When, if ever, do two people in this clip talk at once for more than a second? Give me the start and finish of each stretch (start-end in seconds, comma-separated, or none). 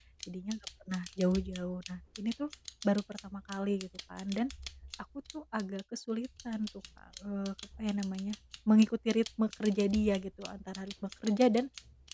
none